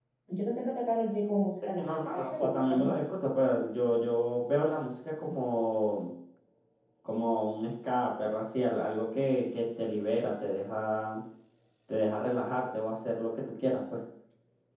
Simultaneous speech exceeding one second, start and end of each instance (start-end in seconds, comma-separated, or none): 1.6-3.0